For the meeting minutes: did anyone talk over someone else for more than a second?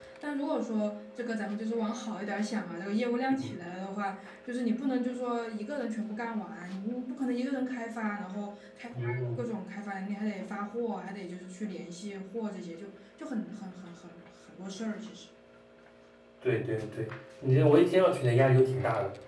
No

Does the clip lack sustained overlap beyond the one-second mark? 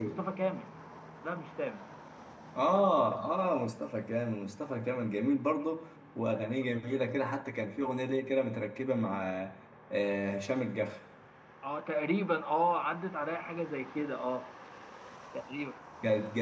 Yes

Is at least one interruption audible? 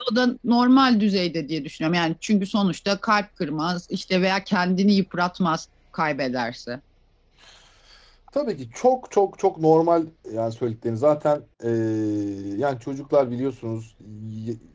No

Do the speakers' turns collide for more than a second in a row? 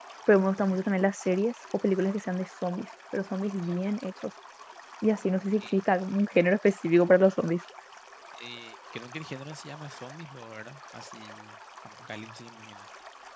No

